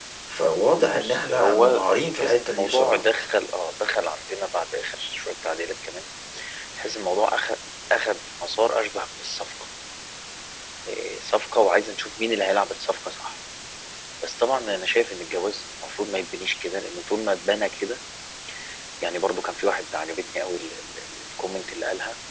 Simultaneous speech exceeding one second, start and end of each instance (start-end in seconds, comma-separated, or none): 0.9-3.1